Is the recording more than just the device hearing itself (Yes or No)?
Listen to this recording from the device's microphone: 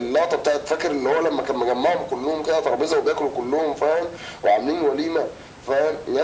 No